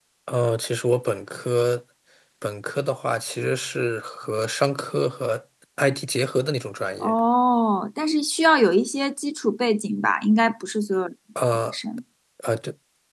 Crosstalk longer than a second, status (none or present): none